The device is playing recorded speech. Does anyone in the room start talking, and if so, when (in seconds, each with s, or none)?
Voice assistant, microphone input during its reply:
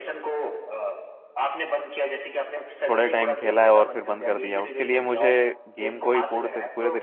2.9 s